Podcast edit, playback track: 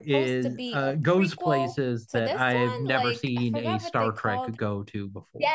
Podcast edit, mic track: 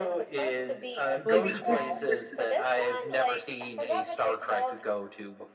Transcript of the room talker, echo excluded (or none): Like, there- there's